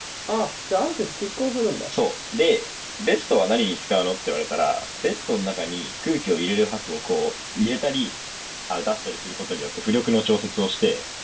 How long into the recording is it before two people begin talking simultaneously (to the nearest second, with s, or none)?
none